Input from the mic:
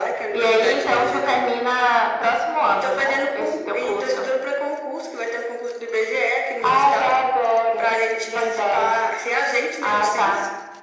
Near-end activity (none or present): none